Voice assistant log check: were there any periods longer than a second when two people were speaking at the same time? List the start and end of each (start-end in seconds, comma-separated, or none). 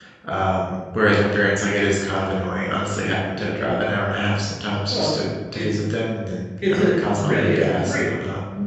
6.6-8.1